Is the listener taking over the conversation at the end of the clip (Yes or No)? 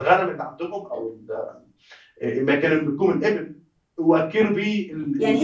Yes